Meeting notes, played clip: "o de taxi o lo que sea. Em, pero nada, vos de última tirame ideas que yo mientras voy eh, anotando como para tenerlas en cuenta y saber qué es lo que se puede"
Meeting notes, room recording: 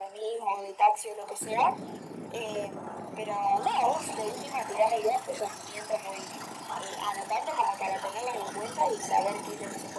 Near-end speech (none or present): none